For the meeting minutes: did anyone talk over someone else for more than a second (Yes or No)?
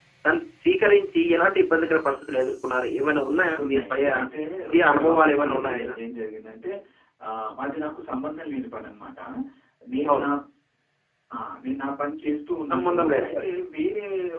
Yes